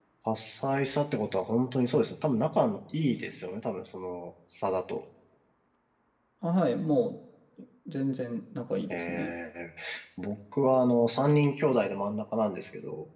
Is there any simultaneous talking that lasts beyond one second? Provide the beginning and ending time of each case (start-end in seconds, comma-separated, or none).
none